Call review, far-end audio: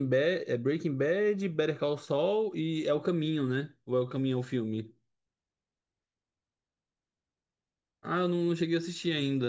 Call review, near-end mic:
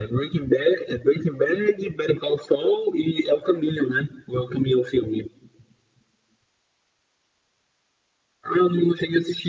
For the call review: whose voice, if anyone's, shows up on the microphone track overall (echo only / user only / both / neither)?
echo only